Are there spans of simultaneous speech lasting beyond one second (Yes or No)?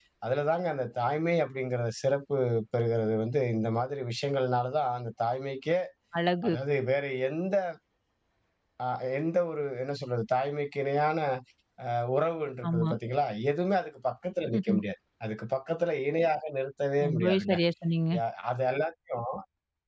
No